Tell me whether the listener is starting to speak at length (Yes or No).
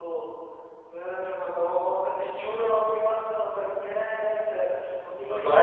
No